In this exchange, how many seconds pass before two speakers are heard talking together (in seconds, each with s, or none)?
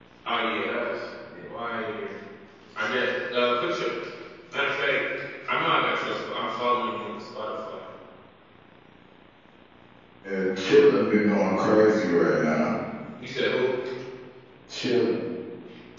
none